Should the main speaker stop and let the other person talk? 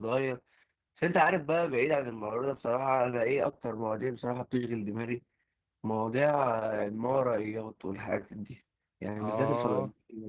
No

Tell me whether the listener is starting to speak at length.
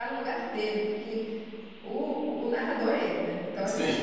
No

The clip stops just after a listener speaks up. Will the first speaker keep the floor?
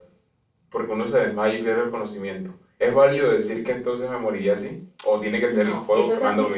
No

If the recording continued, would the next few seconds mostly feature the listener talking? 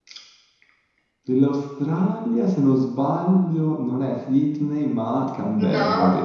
Yes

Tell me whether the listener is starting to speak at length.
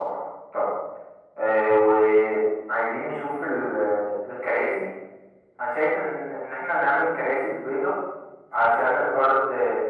No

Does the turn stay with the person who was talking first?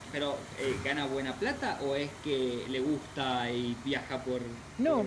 No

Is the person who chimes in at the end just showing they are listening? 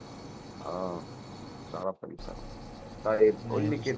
Yes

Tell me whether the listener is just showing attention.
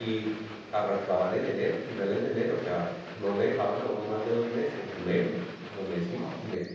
Yes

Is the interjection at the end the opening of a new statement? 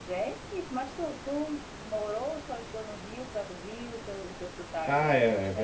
Yes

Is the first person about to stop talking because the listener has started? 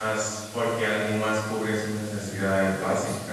No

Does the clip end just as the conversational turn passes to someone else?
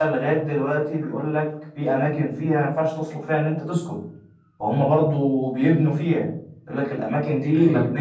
No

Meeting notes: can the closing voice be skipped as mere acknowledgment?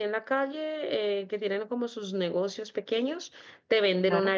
Yes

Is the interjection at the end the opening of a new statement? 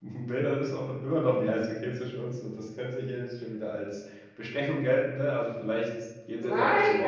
Yes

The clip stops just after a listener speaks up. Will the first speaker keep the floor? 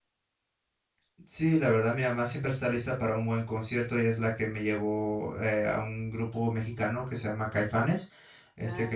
Yes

